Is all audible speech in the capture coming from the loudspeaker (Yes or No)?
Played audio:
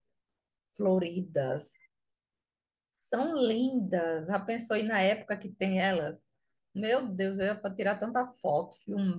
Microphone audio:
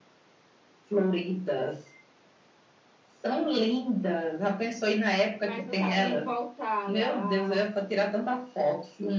No